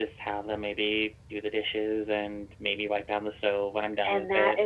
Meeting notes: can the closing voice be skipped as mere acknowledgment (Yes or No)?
No